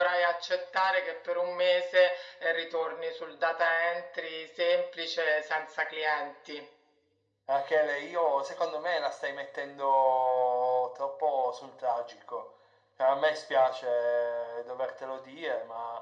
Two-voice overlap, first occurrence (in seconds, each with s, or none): none